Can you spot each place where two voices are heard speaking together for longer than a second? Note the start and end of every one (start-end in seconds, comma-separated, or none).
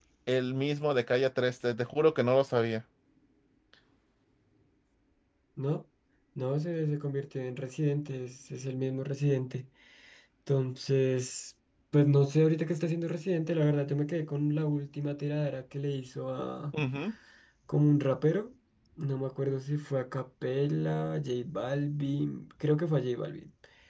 none